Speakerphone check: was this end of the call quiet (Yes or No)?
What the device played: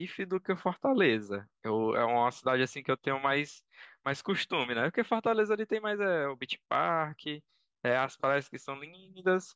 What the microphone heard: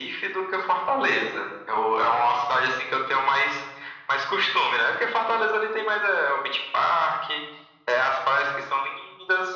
Yes